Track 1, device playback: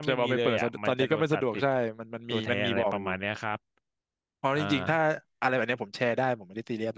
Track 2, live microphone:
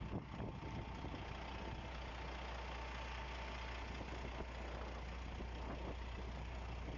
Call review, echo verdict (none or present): none